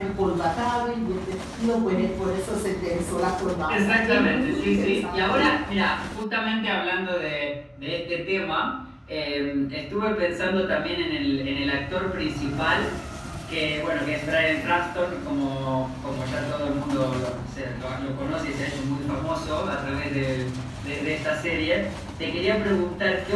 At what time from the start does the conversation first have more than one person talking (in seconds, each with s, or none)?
3.7 s